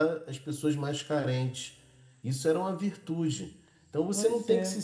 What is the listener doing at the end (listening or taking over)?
listening